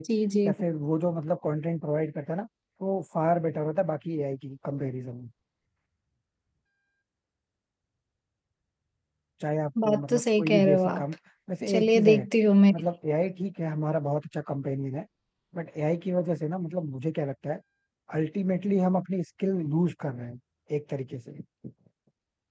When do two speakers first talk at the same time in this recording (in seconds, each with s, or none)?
9.8 s